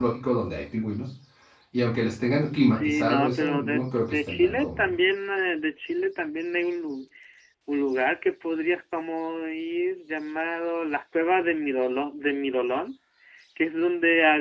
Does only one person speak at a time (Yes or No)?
No